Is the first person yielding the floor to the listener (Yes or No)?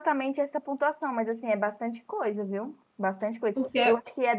No